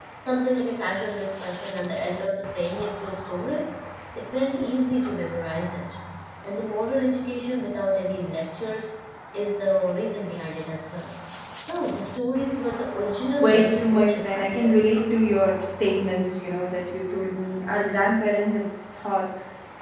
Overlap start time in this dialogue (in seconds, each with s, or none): 13.4 s